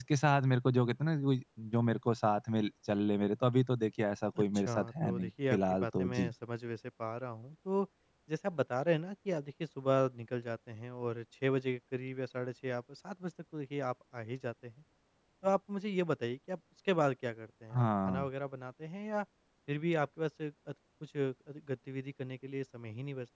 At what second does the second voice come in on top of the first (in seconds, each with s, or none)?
4.4 s